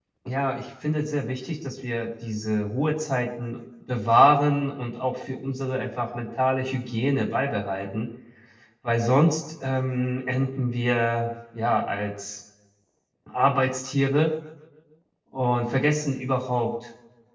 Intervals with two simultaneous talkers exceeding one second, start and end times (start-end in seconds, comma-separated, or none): none